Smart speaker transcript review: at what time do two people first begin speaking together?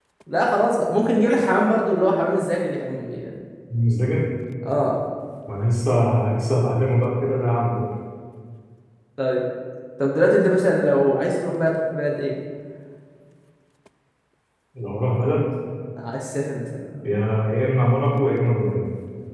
none

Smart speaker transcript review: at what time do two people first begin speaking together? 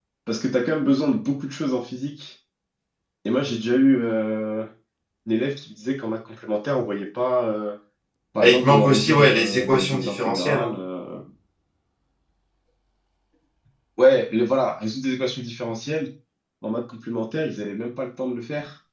8.4 s

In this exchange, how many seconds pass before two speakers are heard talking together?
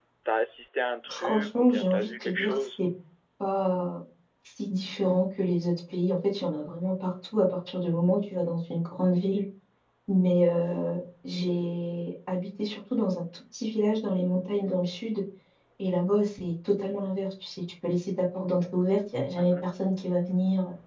1.1 s

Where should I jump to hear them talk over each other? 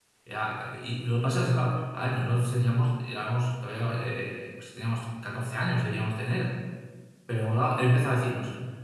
none

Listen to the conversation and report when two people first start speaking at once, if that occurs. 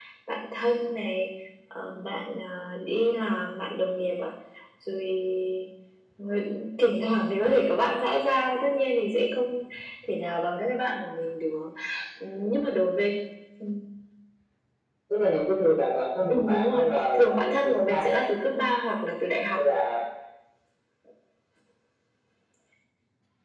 16.3 s

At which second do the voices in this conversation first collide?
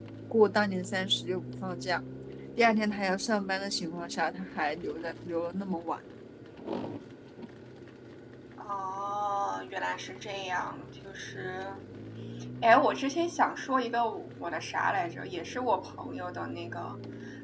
none

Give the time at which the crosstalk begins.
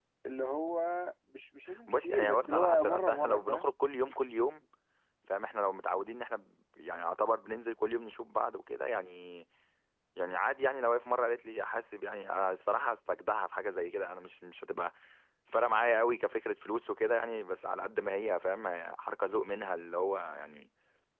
1.9 s

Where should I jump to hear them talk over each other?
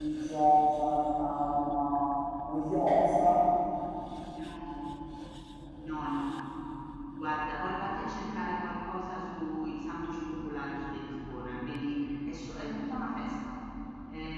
none

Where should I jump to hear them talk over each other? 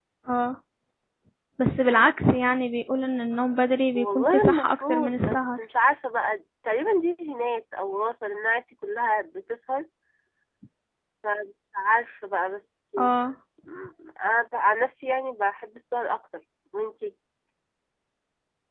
3.9 s

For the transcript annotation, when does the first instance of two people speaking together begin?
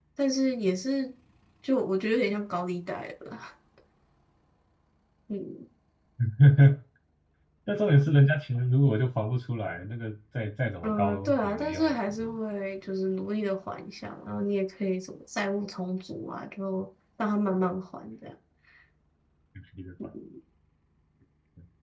10.8 s

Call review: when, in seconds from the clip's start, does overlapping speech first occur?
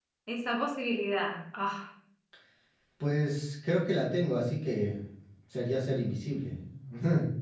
none

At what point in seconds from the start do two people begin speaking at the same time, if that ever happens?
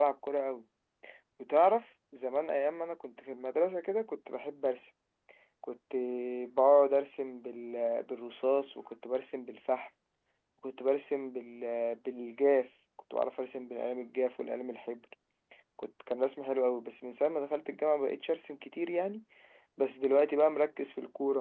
none

